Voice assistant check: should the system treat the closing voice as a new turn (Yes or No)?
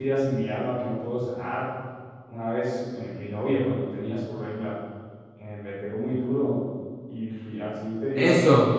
Yes